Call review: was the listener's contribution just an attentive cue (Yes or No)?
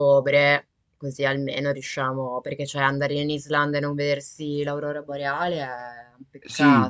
No